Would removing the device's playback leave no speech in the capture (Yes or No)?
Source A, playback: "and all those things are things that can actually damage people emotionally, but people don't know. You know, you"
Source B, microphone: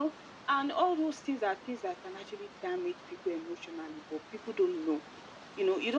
Yes